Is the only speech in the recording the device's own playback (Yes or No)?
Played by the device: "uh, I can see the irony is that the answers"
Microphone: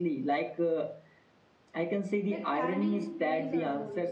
No